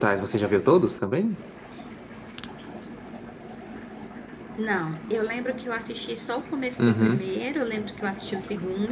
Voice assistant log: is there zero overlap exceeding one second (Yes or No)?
Yes